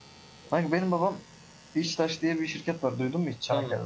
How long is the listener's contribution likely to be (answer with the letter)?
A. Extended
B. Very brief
A